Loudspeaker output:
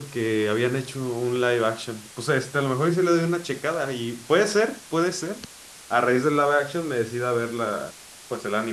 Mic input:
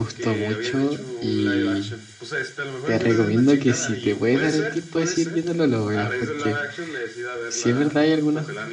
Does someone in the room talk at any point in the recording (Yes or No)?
Yes